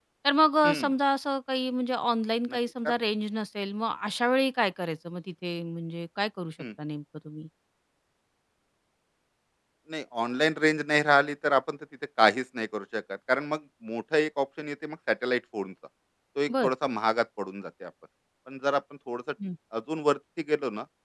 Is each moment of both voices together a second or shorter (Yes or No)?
Yes